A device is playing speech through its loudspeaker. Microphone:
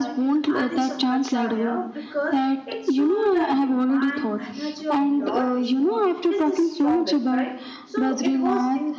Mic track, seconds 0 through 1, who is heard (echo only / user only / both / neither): both